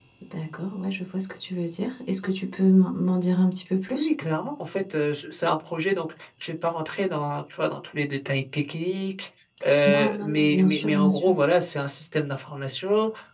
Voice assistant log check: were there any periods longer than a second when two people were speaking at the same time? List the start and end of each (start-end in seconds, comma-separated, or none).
9.8-11.3